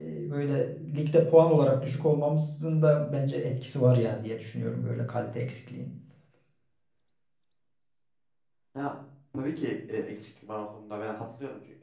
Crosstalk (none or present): none